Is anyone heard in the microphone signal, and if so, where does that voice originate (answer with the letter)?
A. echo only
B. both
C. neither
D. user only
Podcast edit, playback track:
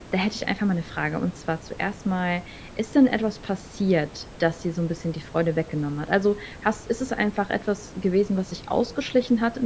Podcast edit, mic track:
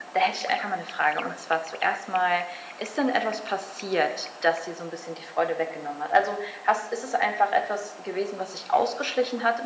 A